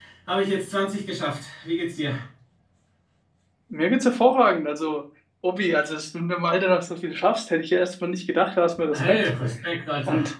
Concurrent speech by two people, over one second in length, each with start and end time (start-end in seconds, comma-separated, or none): none